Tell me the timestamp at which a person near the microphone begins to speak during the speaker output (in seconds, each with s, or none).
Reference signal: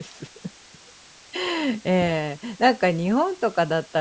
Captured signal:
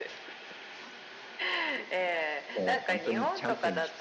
2.5 s